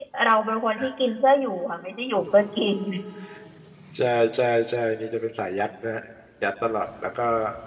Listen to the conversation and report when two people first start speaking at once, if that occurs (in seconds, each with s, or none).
none